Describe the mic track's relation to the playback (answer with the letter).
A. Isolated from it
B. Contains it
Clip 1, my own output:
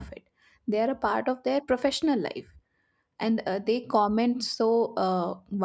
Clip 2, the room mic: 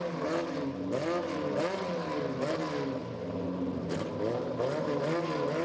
A